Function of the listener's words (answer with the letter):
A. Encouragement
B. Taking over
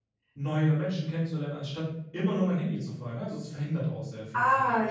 B